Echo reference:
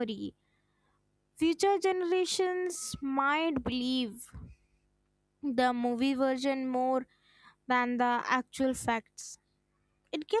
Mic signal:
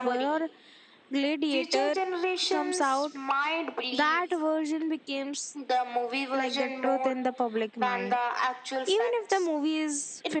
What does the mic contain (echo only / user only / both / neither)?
both